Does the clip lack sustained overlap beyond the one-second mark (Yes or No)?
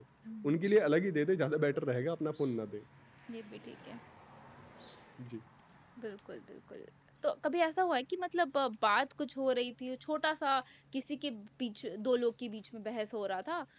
Yes